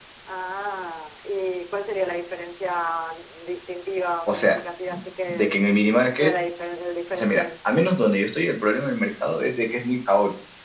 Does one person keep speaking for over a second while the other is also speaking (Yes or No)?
No